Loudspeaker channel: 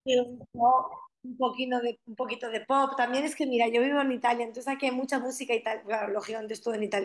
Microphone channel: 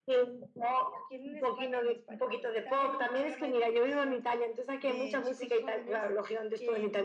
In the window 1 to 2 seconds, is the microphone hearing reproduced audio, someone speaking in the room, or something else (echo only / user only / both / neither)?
both